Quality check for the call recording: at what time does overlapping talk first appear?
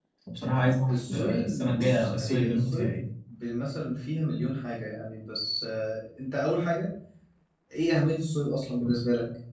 1 s

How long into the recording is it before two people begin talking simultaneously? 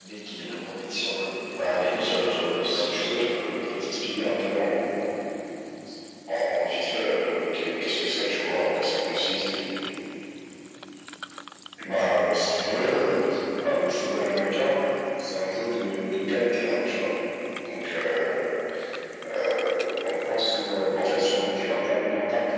2 s

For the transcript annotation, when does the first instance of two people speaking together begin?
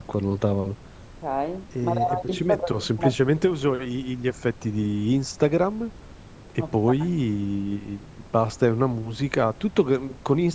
2 s

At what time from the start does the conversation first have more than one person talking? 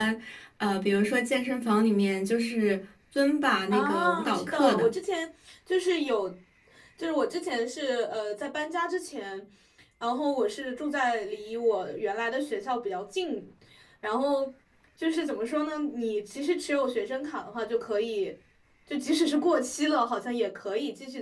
4 s

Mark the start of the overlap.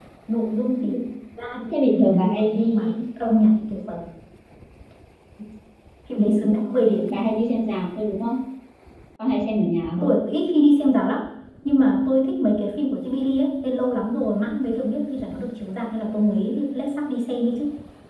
2 s

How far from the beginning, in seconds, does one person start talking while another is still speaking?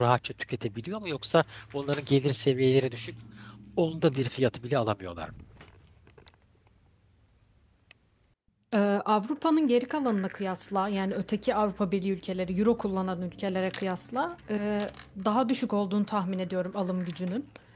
none

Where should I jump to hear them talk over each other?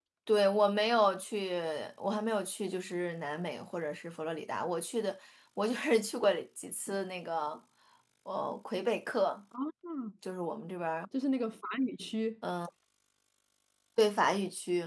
none

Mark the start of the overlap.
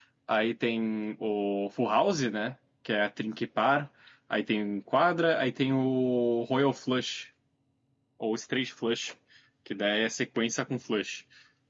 none

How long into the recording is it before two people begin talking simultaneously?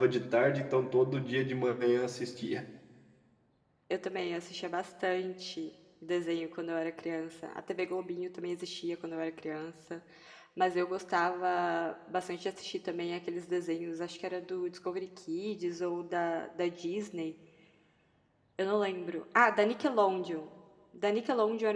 none

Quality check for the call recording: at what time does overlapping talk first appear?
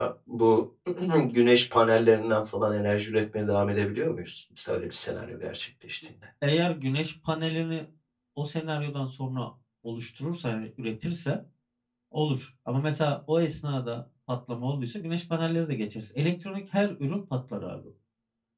none

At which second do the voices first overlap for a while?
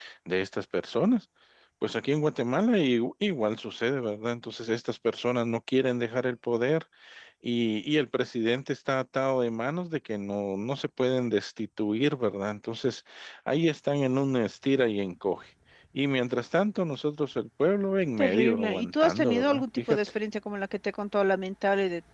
18 s

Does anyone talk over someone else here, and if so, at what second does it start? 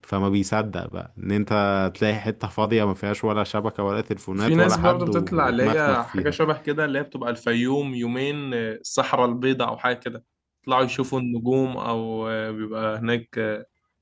4 s

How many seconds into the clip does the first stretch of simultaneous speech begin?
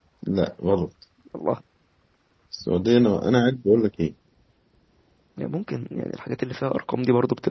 none

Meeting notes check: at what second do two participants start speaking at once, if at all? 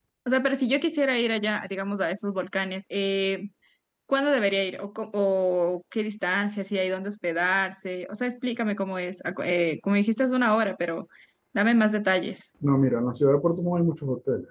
none

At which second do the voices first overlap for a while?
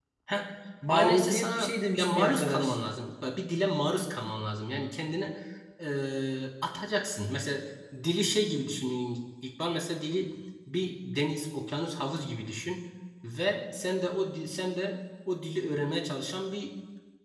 1 s

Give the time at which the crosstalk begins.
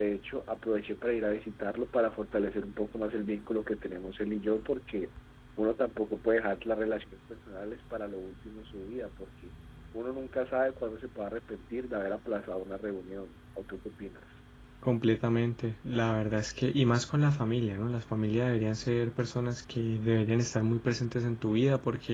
none

